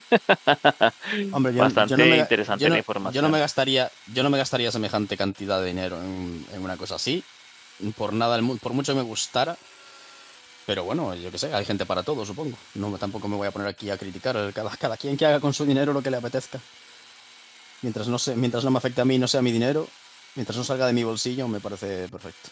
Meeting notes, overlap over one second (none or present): present